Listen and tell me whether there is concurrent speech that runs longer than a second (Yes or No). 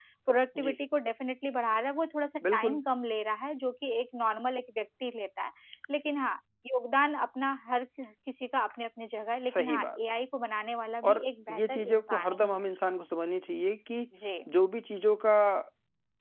Yes